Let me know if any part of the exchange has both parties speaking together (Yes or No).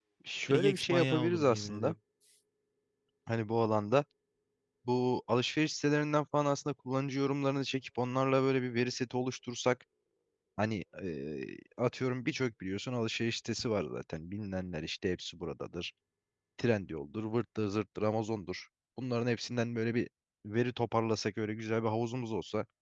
Yes